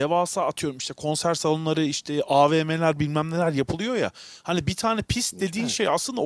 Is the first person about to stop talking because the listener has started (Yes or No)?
No